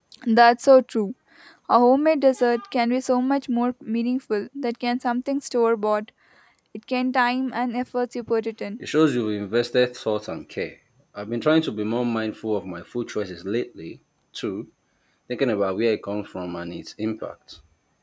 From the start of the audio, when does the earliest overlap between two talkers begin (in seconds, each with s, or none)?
none